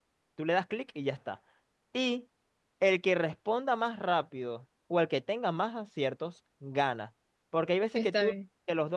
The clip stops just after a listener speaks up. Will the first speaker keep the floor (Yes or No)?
Yes